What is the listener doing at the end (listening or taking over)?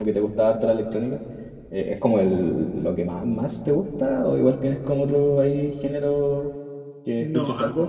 taking over